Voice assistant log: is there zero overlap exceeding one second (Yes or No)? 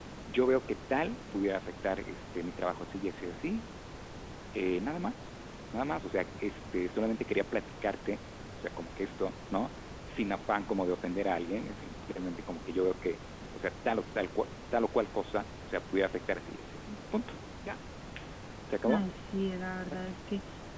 Yes